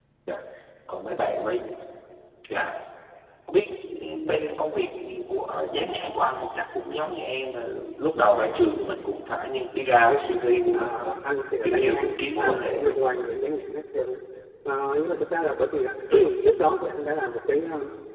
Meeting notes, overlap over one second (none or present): present